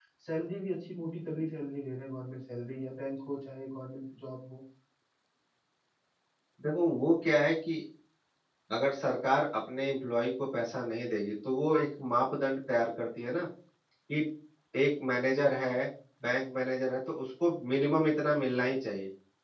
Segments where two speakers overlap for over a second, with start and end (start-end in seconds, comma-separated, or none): none